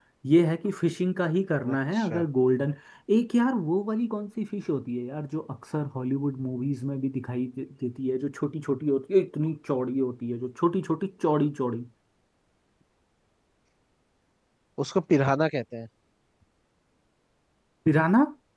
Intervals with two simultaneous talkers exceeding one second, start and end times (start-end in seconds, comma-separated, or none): none